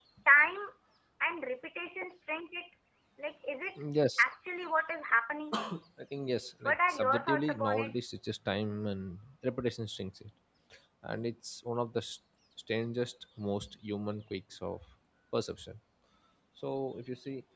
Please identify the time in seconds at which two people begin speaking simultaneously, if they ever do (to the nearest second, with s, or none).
7 s